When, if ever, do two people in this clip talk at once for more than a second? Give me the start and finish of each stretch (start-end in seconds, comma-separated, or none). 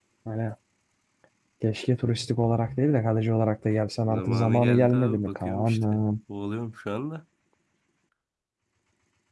4.1-6.0